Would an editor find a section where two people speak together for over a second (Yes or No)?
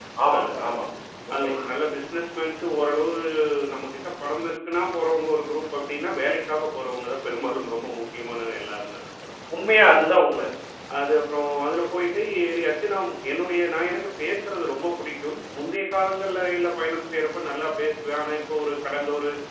No